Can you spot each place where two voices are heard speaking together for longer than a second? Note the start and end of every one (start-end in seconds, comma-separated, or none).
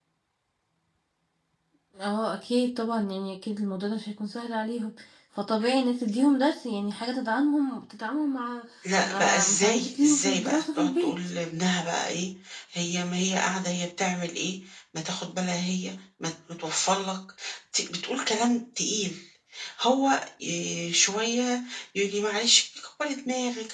9.0-11.1